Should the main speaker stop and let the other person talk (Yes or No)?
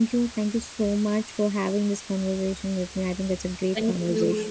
Yes